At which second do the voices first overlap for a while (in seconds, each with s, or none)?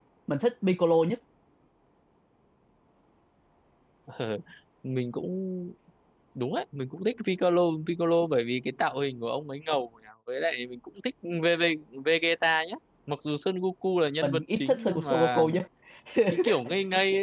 14.2 s